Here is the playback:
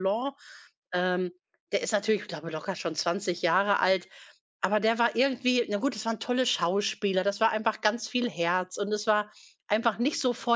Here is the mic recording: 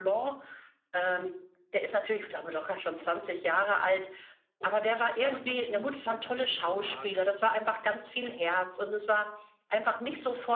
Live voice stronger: No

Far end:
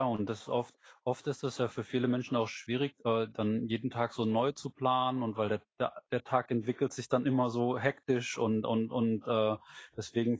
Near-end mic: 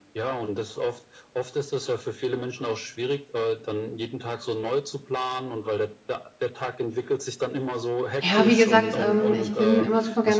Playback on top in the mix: No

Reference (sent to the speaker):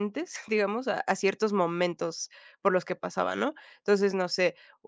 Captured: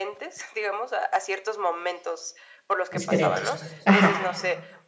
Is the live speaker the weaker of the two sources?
No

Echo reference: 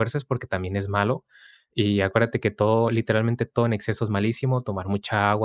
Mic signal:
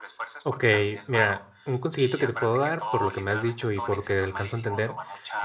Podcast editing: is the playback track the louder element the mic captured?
No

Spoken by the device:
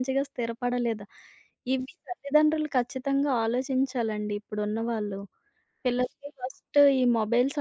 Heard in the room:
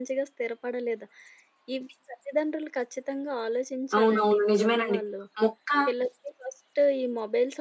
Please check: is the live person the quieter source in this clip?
No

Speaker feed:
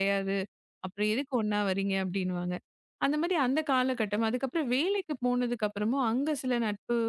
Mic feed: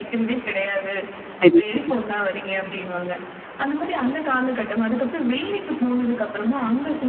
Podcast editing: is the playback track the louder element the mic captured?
No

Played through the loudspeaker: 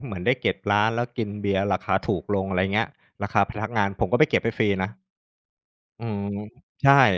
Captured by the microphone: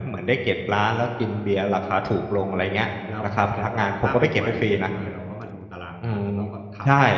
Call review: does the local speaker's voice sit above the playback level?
No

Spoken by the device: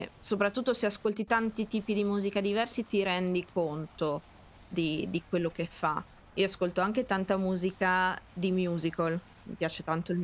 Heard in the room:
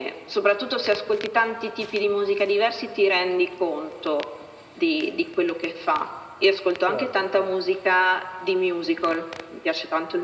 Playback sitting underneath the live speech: No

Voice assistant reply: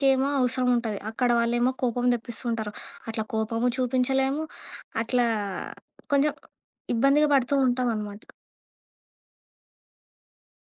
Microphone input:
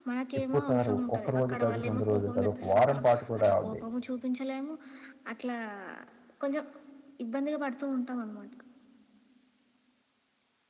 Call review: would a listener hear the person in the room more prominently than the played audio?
Yes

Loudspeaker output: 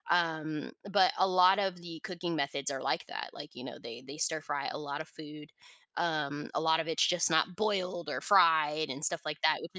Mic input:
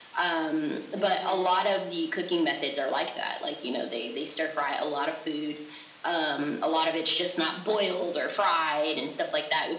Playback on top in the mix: Yes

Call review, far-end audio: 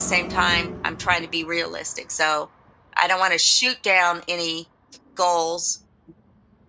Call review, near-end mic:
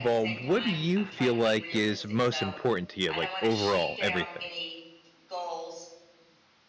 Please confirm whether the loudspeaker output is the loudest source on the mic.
No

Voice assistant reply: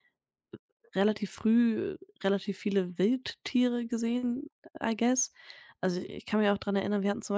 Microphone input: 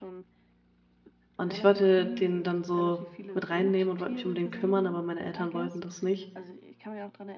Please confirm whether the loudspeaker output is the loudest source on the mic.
No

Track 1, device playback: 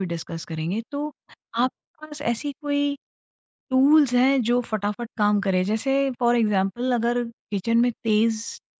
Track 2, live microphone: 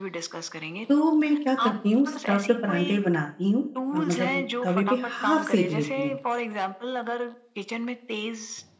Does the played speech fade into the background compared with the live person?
Yes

